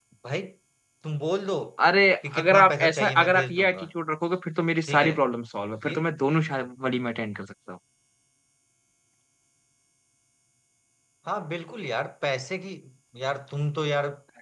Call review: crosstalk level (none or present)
present